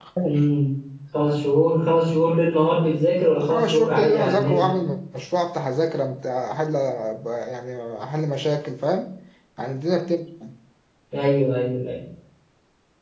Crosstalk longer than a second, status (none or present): present